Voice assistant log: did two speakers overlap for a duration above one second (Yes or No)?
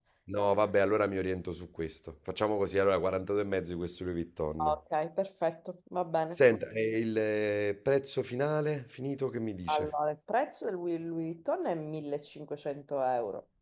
No